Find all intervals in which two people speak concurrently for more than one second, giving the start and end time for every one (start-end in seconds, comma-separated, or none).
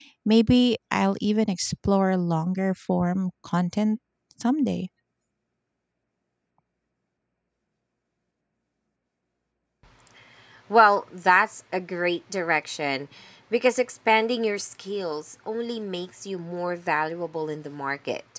none